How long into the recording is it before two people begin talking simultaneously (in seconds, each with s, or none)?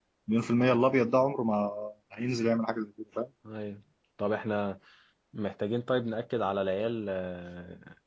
none